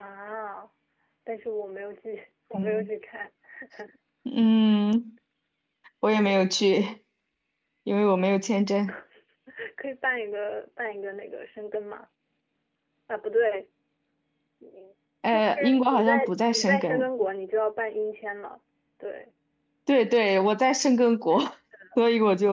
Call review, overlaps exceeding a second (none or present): present